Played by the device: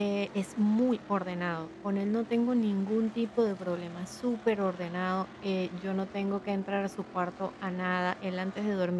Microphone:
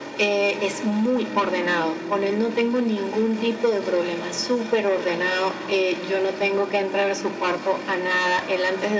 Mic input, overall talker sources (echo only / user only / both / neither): echo only